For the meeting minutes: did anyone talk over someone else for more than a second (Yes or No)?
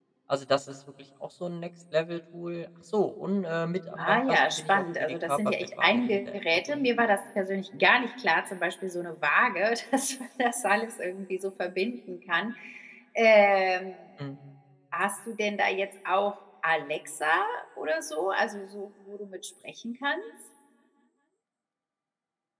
Yes